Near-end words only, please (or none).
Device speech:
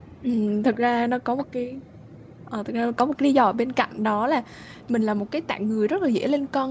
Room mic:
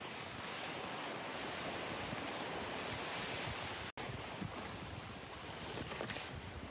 none